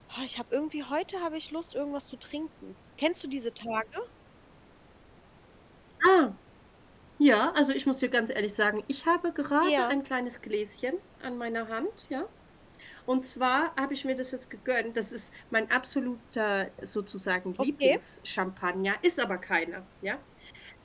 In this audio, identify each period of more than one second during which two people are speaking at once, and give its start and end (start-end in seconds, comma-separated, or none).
none